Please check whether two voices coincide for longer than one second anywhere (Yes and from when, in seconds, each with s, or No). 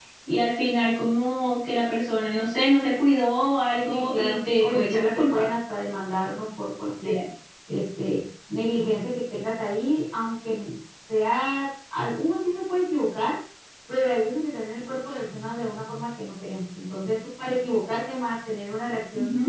Yes, from 3.9 s